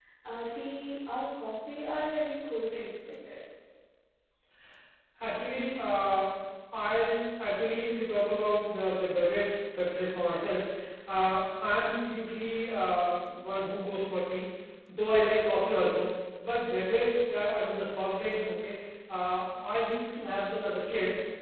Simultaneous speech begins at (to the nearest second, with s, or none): none